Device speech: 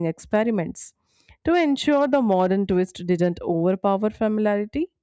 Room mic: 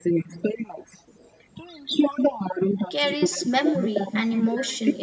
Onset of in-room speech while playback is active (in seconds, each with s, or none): 2.9 s